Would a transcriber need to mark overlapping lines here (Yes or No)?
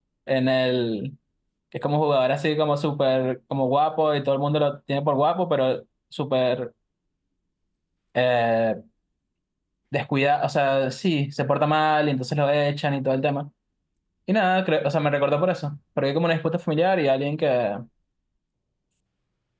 No